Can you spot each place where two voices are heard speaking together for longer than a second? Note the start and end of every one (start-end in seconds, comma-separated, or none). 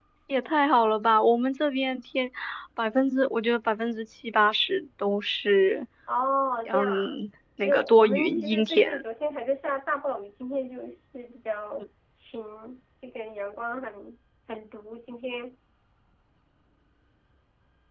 7.6-9.0